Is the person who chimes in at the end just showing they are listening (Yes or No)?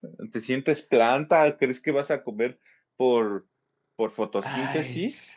No